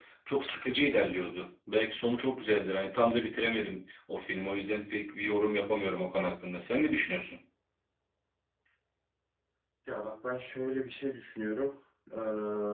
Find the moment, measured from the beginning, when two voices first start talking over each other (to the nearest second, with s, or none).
none